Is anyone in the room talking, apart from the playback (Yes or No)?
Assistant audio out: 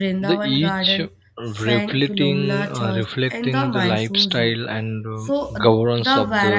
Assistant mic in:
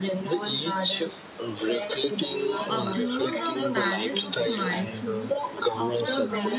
Yes